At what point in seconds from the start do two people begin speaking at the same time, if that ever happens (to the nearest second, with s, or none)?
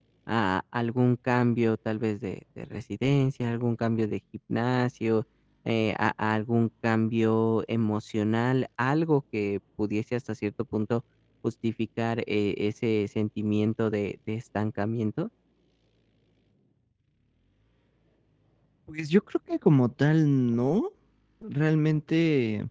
none